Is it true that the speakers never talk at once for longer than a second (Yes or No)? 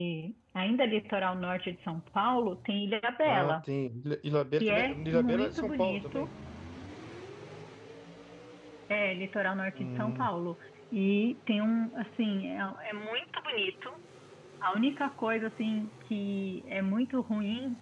No